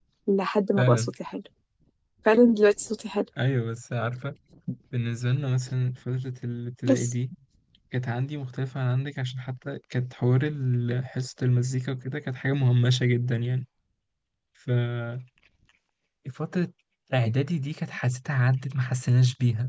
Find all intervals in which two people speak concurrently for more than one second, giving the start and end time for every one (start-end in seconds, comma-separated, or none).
none